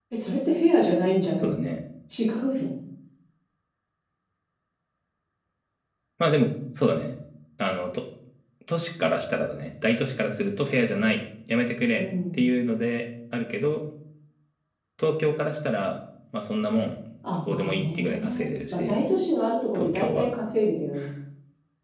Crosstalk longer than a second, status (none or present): present